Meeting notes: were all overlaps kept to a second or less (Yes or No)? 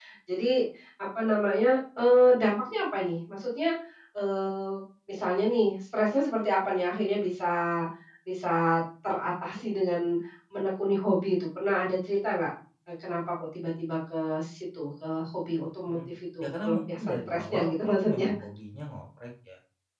No